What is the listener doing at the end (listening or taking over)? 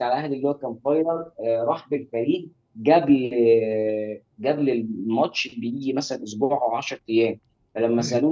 listening